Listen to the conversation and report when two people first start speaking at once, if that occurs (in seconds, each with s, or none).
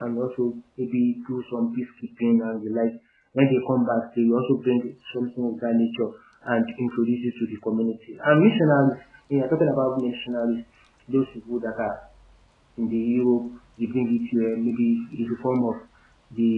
none